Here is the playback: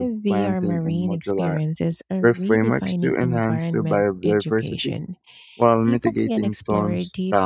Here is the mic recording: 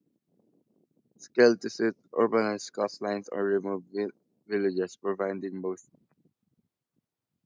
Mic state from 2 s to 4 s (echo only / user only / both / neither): user only